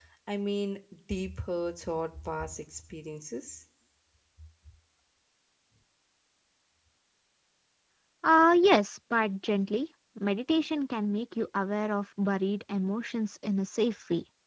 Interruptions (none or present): none